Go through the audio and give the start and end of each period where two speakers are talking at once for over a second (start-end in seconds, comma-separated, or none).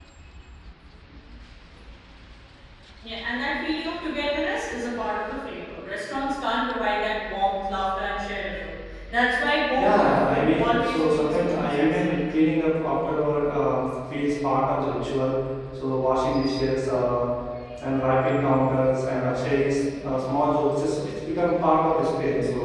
9.8-12.2